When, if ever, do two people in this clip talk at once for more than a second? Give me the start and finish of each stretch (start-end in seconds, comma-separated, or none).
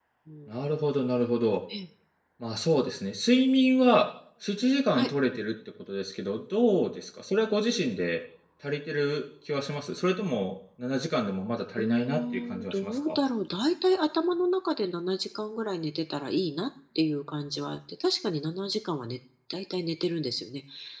11.8-13.2